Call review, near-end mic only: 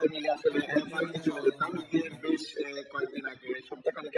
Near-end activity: present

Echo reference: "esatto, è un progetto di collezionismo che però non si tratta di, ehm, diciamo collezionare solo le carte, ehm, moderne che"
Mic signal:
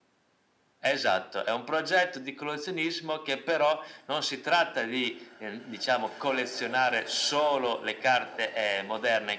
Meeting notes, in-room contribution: none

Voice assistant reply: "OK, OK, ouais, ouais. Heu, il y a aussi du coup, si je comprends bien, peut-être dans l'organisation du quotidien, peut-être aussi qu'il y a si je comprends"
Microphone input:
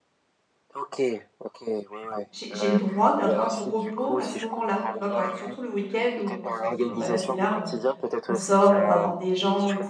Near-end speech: present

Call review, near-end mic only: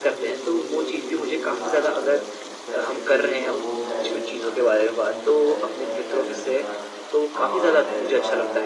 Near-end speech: present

